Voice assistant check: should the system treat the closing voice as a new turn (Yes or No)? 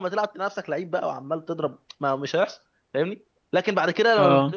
No